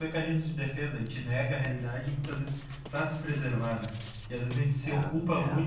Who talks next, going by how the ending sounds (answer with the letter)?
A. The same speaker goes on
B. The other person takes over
A